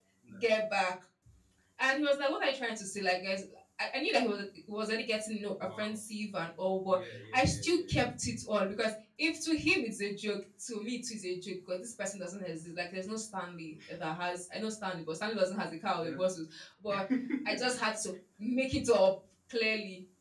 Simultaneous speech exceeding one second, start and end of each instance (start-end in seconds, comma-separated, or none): 6.9-8.1